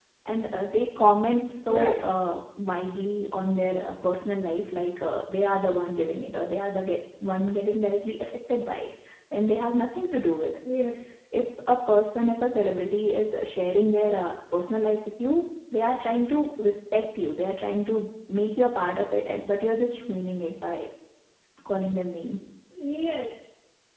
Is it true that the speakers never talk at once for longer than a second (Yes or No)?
Yes